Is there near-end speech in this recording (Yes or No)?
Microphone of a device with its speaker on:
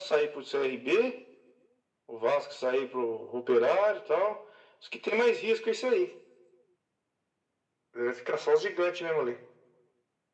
No